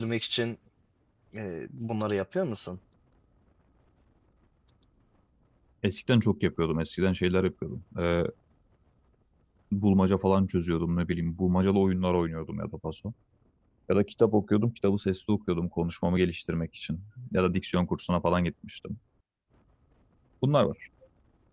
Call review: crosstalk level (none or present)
none